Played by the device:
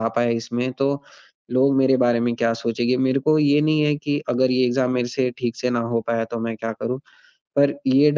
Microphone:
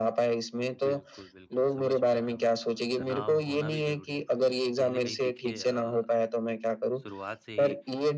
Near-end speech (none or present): present